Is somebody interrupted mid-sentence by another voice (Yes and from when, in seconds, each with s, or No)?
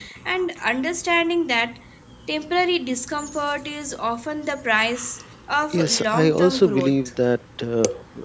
Yes, from 5.7 s